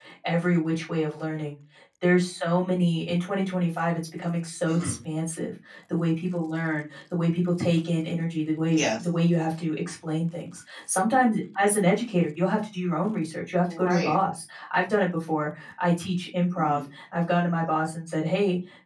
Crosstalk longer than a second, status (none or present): none